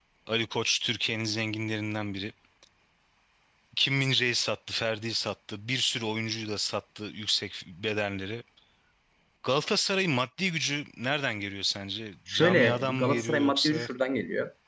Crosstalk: present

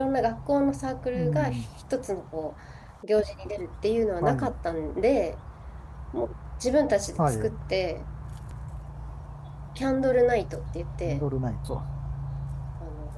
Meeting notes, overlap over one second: none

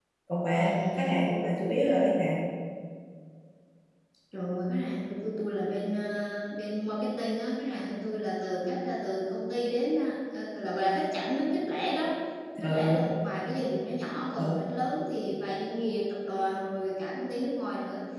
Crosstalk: present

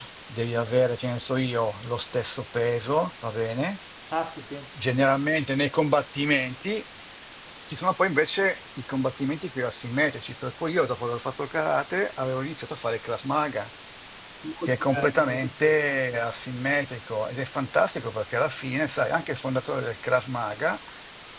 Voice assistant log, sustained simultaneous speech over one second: present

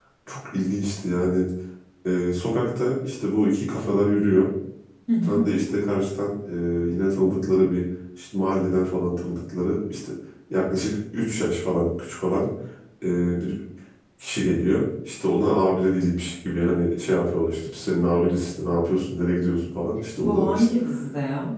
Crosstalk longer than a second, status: none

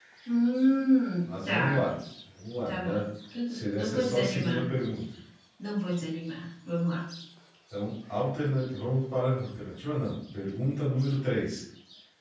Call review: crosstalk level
present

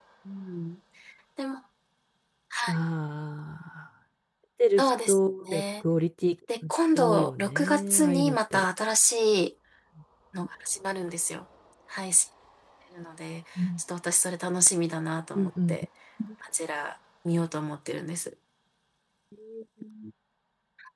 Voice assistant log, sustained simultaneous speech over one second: present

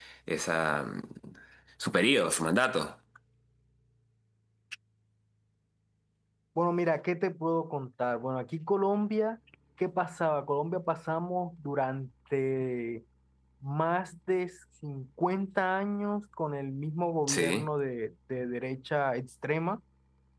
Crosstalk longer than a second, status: none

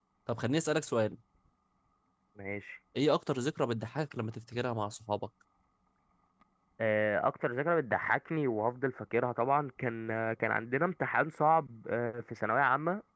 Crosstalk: none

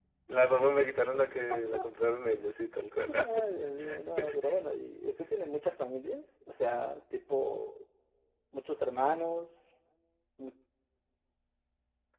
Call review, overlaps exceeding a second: none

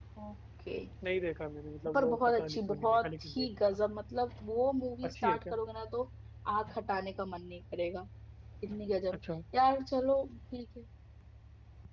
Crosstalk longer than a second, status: present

